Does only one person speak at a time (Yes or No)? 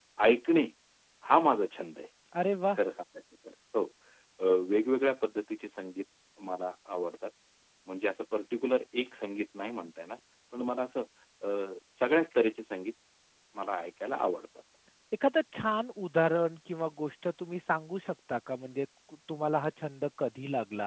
Yes